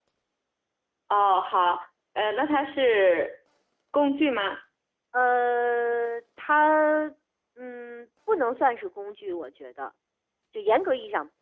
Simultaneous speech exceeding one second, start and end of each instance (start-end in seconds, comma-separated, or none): none